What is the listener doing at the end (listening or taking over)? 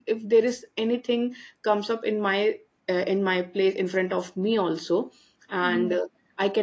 listening